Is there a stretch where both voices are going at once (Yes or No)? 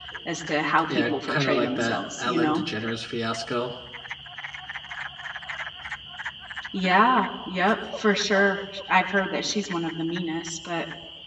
Yes